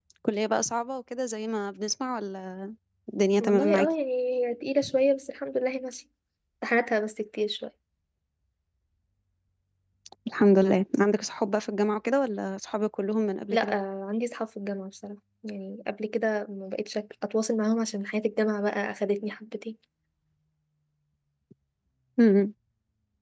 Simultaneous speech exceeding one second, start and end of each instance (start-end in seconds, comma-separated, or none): none